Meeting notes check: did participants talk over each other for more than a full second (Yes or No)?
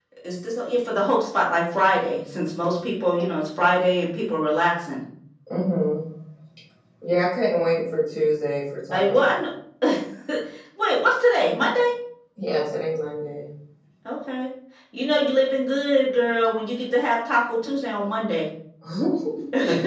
No